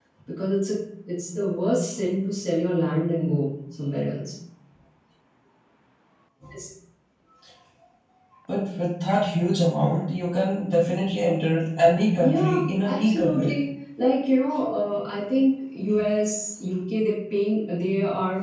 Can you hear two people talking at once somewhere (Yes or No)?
Yes